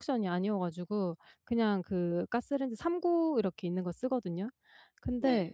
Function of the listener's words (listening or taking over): listening